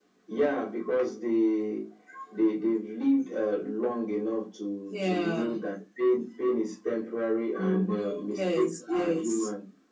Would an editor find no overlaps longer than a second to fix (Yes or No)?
No